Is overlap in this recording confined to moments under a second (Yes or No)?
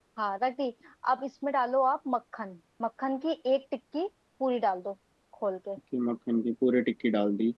Yes